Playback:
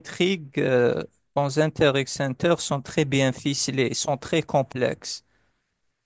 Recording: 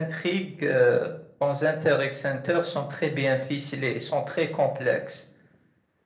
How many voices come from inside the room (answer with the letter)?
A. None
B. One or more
A